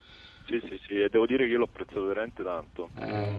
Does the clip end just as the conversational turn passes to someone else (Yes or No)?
No